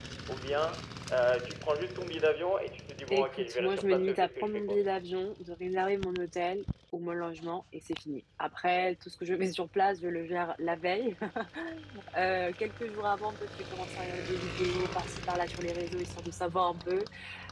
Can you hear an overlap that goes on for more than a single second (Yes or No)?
Yes